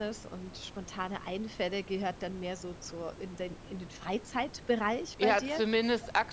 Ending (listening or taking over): taking over